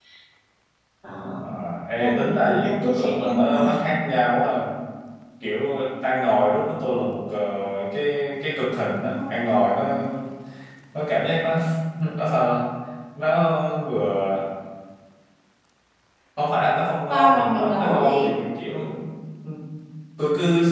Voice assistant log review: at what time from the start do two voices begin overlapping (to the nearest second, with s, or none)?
2 s